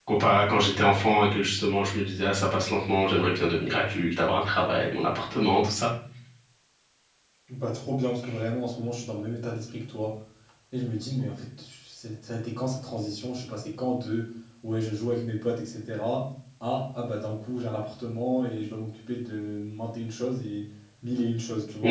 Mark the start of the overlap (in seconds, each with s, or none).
none